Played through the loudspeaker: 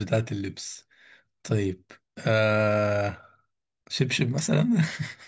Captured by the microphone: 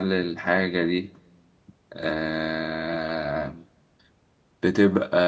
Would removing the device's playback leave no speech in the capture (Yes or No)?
No